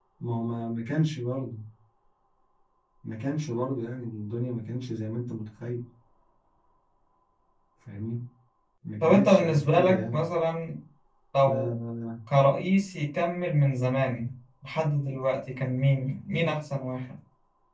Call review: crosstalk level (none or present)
present